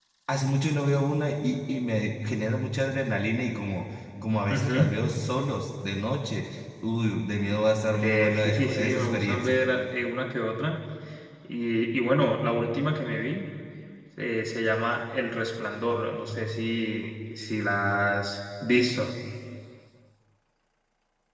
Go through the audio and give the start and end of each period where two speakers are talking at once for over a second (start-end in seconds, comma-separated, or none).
7.9-9.6